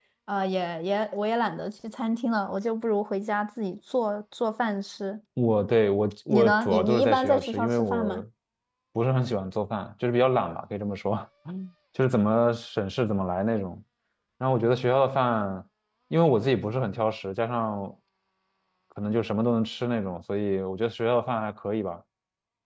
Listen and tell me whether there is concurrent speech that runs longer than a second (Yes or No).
Yes